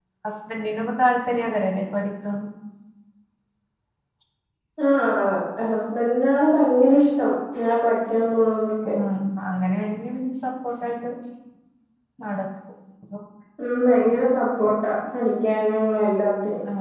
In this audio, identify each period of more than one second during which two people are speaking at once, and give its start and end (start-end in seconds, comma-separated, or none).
none